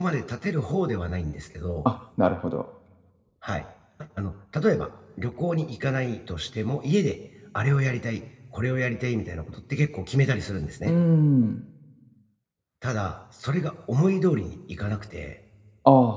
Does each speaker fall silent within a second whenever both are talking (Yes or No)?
Yes